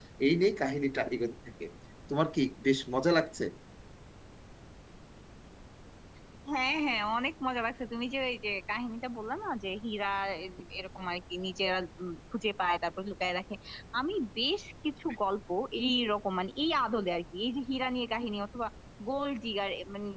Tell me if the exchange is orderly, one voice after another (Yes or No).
Yes